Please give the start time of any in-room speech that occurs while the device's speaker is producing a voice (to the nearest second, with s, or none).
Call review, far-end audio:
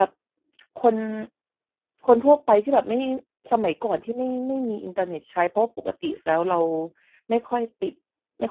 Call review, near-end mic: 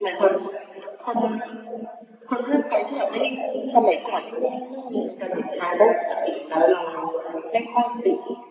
none